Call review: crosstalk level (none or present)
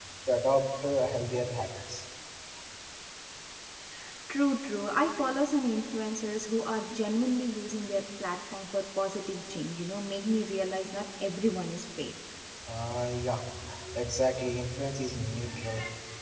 none